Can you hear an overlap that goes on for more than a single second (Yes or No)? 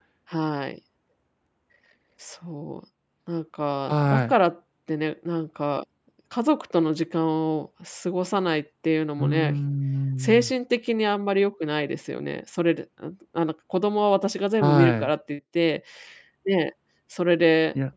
No